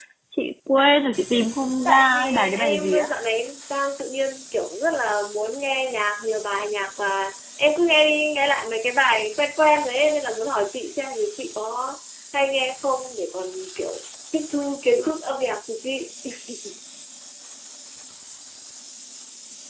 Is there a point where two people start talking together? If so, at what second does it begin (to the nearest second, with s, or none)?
2 s